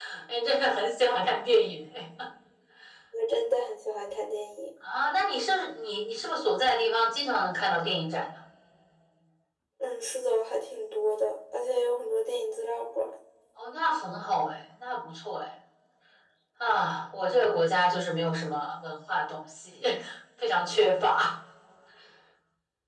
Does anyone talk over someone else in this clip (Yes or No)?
No